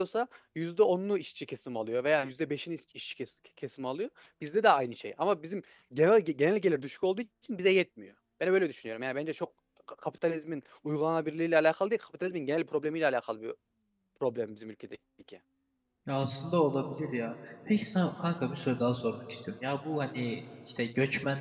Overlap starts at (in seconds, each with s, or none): none